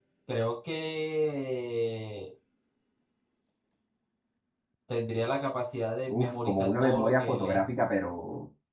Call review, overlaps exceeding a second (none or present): present